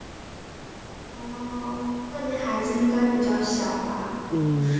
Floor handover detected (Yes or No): Yes